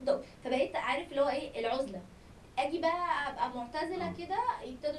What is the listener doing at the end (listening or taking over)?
listening